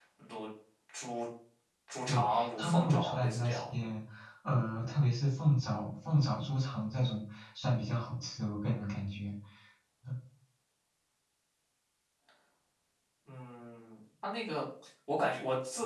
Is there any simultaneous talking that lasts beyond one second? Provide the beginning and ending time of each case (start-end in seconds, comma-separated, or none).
2.1-3.6